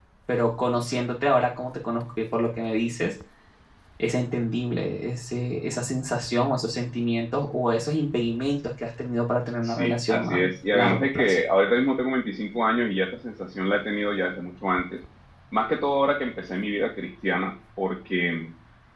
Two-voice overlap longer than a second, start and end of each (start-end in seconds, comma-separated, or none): 9.6-11.3